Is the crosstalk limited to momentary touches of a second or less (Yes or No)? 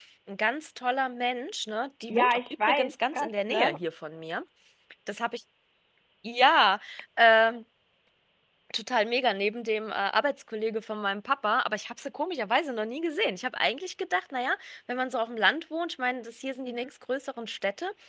No